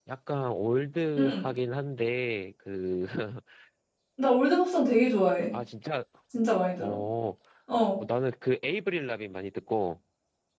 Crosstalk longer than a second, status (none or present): none